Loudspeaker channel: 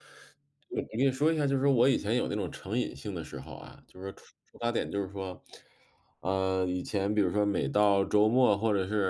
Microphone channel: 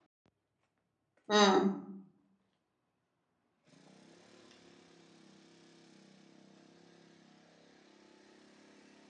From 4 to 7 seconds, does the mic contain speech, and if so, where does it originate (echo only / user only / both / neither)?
neither